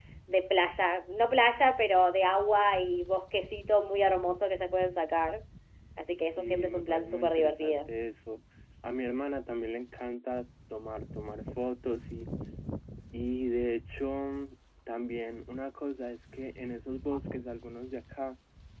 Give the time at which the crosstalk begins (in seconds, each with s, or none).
6.2 s